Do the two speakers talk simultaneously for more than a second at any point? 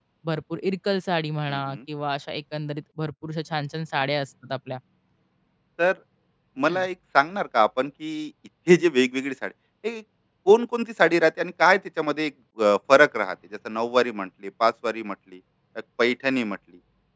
No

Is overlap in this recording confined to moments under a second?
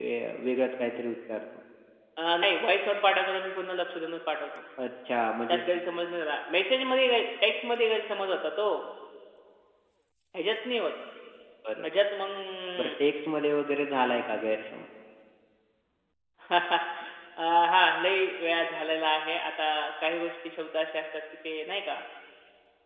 Yes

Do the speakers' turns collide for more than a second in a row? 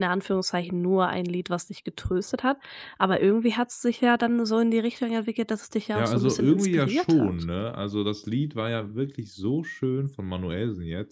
Yes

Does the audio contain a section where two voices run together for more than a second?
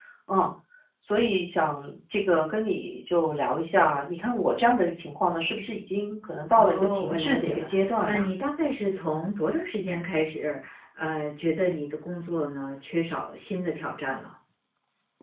Yes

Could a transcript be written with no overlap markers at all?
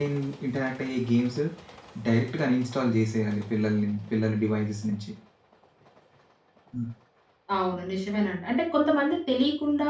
Yes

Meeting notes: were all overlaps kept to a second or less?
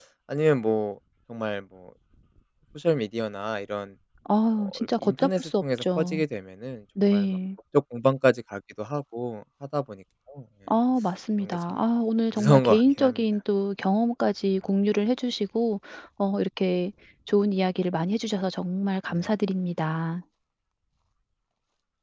No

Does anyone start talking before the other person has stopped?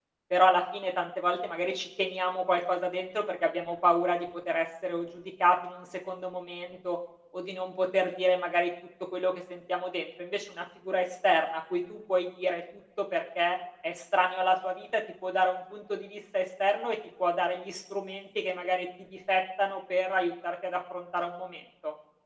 No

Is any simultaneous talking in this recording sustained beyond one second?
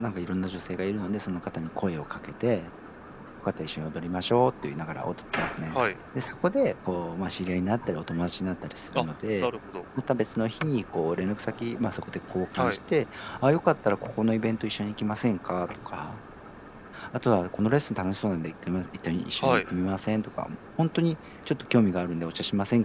No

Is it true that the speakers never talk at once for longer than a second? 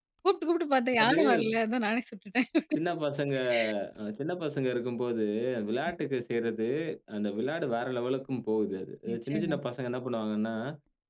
Yes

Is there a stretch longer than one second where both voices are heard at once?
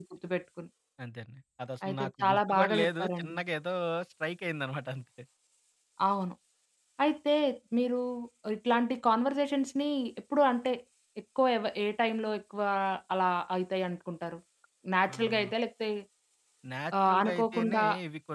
Yes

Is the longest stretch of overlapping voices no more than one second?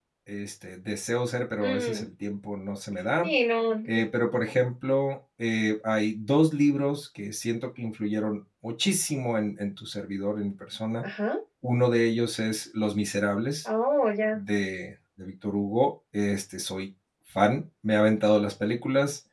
Yes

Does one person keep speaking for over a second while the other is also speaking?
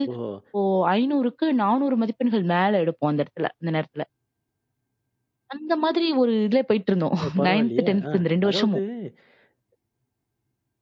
Yes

